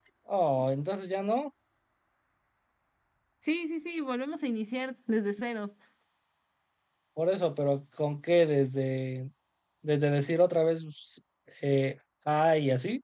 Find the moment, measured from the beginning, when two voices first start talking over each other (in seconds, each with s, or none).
none